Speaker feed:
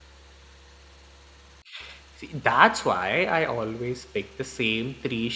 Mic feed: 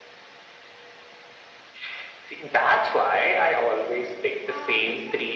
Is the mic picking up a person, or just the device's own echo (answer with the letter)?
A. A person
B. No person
A